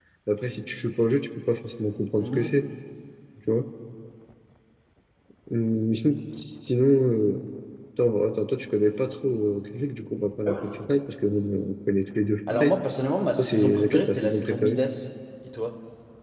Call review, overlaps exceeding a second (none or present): present